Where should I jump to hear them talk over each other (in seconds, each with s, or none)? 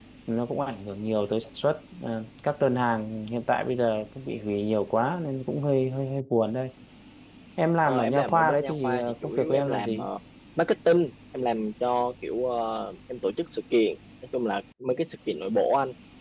7.8 s